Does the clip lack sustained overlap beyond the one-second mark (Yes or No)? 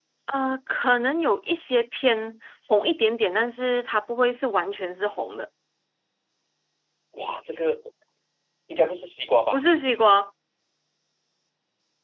Yes